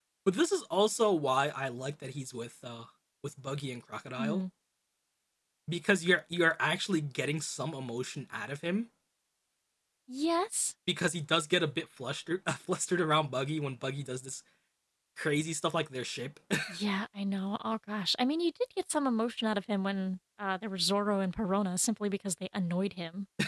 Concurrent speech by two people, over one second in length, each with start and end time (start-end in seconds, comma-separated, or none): none